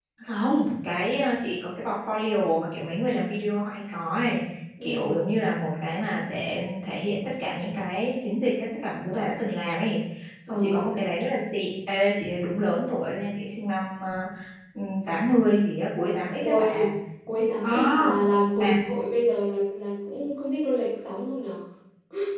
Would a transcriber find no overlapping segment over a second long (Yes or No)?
Yes